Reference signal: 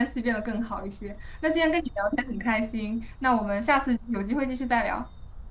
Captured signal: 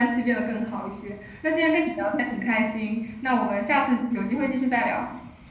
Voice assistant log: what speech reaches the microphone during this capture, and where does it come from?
echo only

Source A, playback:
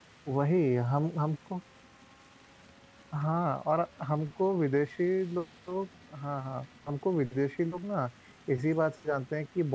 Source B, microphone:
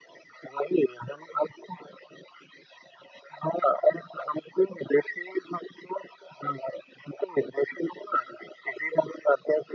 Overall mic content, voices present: echo only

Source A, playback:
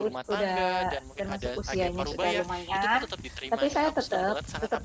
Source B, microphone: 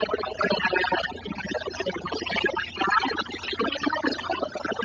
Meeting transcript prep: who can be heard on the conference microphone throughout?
echo only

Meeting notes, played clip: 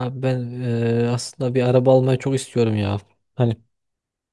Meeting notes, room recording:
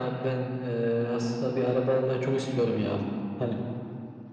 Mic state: echo only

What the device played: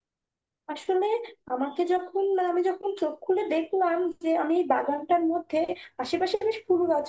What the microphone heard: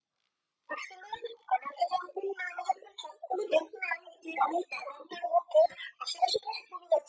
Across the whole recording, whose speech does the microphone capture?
echo only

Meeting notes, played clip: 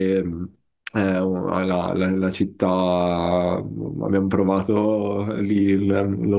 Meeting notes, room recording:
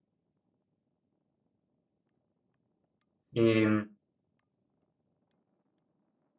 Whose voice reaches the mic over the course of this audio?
user only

